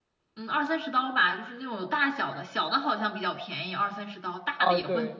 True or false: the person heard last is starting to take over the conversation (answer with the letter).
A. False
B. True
B